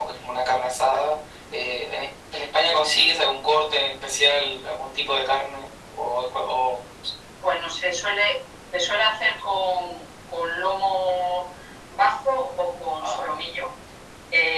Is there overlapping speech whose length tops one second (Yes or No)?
No